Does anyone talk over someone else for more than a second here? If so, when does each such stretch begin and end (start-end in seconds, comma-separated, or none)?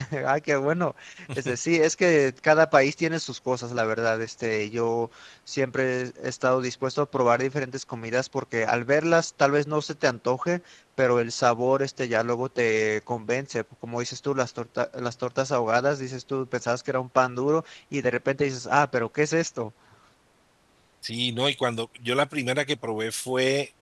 none